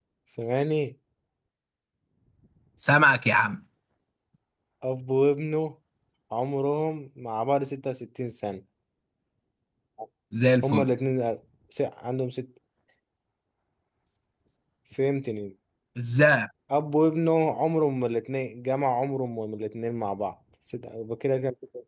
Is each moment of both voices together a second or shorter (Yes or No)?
Yes